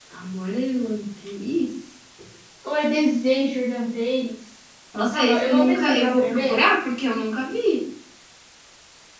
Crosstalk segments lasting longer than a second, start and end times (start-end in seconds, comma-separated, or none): 5.1-6.6